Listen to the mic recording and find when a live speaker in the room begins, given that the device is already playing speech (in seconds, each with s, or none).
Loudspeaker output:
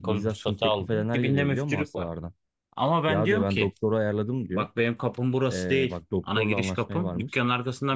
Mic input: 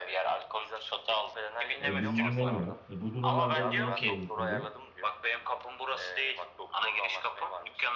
1.8 s